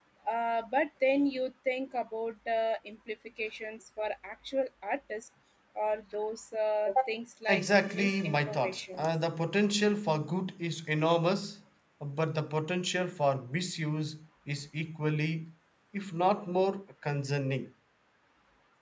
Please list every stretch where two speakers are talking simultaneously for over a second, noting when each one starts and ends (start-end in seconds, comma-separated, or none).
7.5-9.1